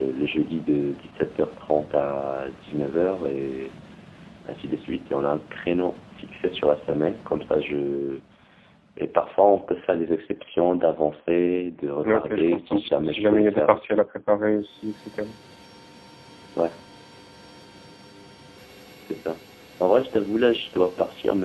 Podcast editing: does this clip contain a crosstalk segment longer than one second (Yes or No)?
Yes